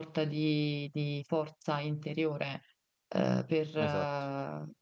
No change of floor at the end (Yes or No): Yes